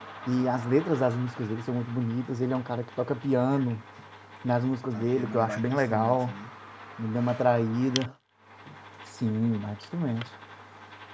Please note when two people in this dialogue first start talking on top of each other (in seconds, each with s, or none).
4.9 s